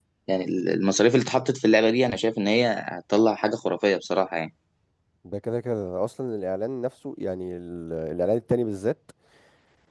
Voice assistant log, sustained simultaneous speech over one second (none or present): none